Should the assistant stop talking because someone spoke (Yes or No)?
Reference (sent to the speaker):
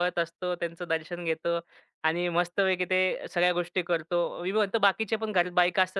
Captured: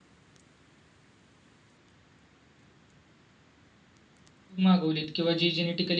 Yes